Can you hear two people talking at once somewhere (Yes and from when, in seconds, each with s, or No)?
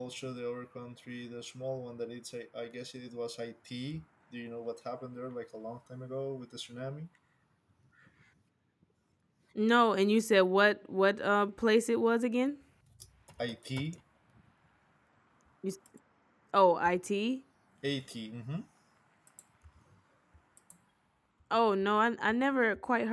No